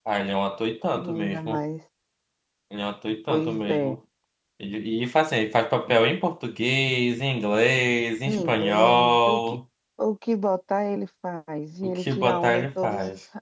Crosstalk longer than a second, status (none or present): present